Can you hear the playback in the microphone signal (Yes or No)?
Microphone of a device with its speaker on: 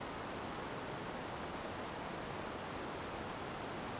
No